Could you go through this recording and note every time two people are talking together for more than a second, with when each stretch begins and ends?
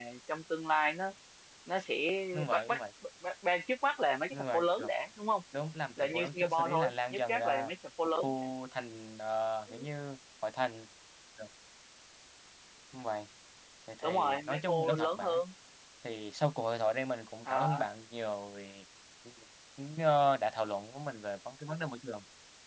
6.0-7.7, 14.0-15.4

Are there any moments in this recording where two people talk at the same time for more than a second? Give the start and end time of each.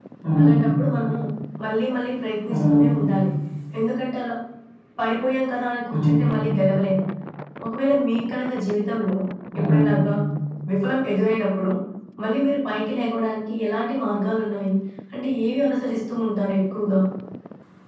none

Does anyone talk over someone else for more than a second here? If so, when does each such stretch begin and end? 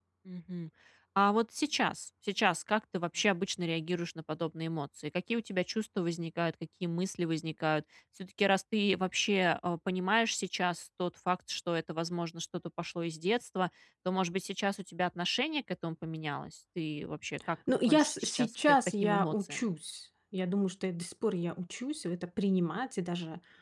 17.9-19.7

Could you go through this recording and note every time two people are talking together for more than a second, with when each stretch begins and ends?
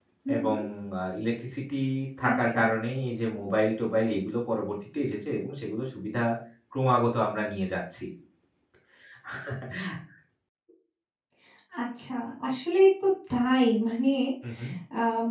none

